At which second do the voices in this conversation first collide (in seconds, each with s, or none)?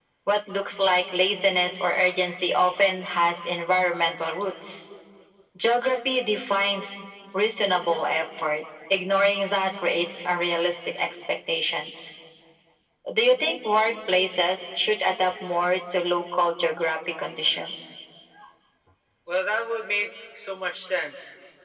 none